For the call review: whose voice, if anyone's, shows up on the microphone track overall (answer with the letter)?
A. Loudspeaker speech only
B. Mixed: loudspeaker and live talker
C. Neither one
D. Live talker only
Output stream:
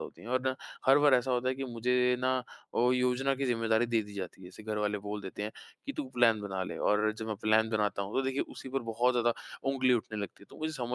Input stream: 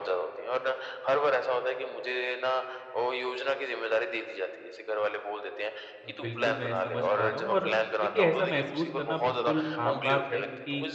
B